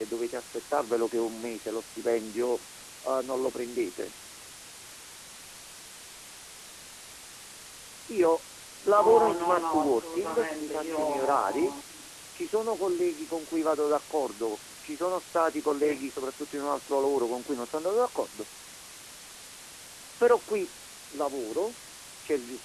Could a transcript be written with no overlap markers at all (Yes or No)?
No